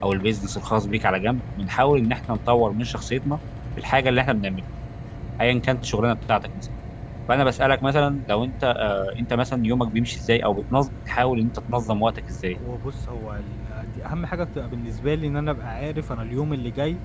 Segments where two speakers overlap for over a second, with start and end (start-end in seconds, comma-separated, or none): none